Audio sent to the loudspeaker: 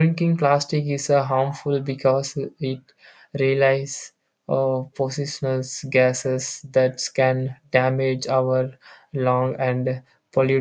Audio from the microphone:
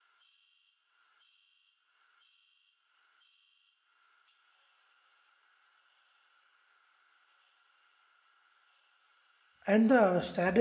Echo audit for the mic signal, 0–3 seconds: neither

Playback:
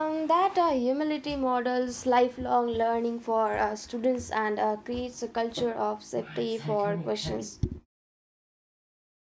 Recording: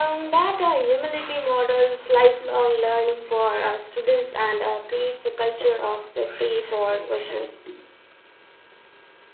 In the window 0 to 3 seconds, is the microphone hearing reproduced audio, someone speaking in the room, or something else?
echo only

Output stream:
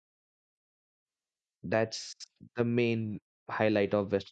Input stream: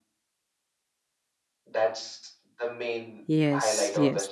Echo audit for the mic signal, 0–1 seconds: neither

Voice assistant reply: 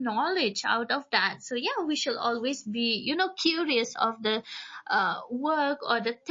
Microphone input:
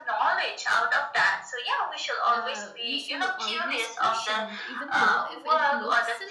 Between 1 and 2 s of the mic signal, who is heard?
echo only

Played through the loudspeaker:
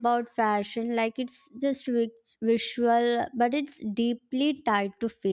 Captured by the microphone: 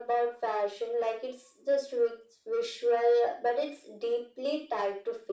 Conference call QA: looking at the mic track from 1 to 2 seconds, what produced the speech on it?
echo only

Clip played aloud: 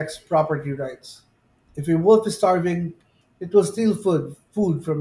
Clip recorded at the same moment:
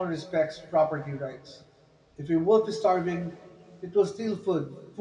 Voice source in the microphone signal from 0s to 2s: echo only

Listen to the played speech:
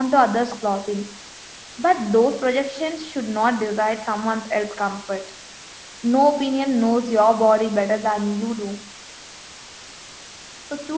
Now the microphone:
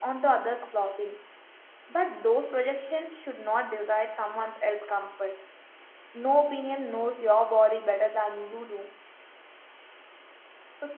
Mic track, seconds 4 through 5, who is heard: echo only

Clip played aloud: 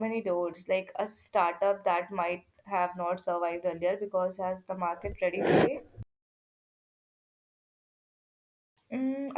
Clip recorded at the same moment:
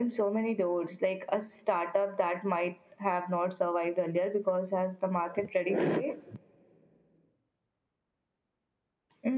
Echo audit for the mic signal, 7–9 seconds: neither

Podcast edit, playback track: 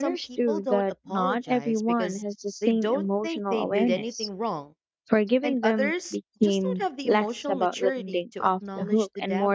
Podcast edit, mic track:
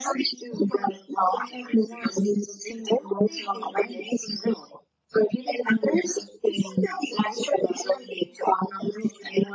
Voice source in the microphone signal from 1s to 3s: echo only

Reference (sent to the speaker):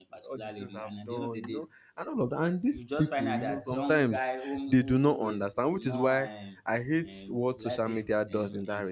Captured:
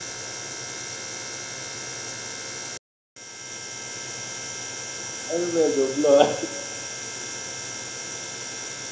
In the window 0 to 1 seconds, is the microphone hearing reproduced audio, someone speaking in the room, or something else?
neither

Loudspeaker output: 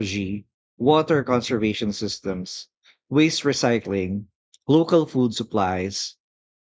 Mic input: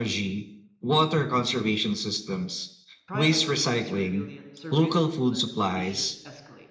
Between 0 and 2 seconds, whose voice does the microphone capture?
echo only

